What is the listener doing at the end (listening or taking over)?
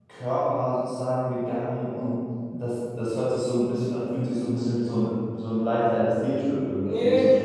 taking over